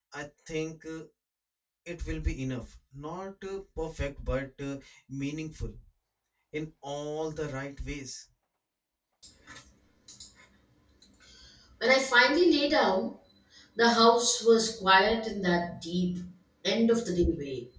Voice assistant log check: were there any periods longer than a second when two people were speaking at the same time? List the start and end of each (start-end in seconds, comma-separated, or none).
none